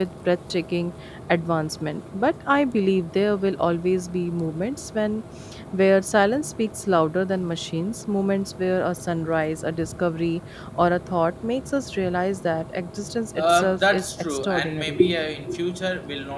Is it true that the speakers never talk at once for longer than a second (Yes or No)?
No